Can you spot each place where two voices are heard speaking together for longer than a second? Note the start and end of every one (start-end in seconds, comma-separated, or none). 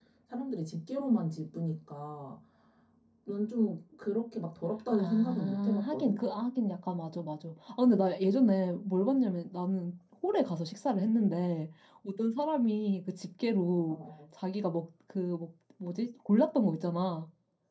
4.9-6.2